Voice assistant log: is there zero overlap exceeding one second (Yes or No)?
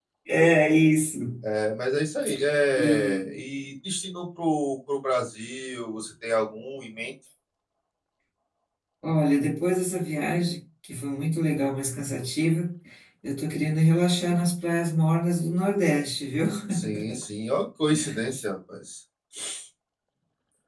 Yes